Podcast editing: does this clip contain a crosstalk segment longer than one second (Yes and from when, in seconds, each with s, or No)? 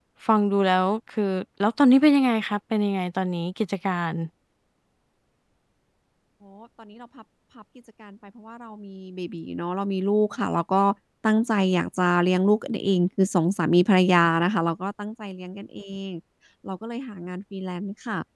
No